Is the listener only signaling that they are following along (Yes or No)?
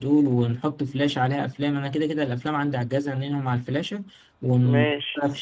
Yes